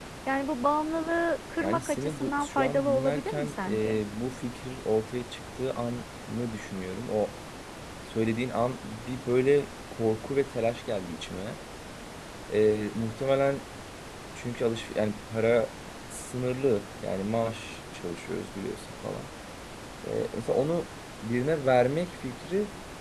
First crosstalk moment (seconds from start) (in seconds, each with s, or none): 1.6 s